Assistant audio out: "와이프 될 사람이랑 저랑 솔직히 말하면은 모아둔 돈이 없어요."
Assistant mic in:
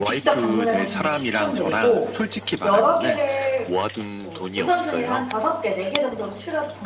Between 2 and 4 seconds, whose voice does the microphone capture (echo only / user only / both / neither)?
both